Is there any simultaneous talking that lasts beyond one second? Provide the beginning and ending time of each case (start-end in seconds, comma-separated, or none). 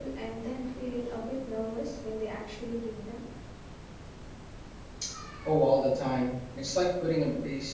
none